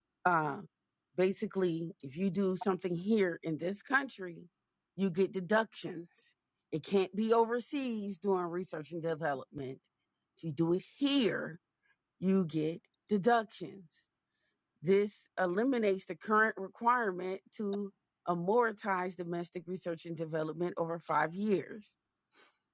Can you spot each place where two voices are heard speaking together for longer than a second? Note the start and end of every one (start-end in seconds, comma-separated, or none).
none